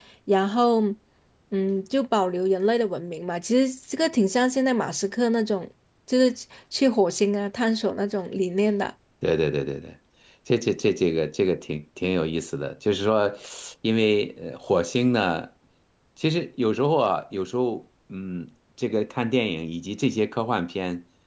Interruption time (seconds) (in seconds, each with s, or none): none